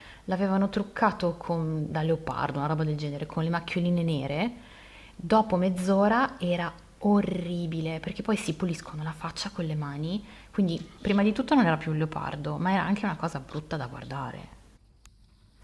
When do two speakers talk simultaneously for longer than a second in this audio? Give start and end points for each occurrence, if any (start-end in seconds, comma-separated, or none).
none